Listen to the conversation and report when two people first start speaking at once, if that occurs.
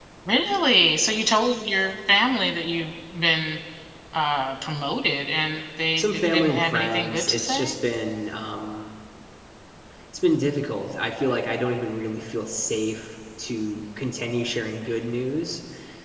6.0 s

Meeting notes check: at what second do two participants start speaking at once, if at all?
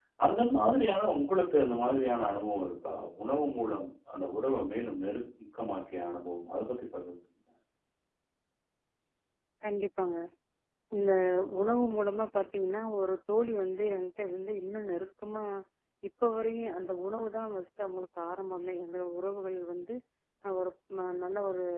none

